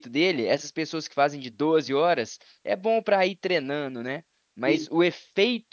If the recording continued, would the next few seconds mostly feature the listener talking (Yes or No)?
No